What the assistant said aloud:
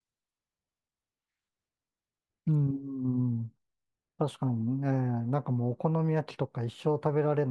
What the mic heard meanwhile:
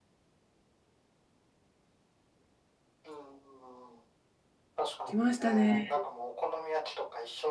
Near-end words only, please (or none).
来ましたね。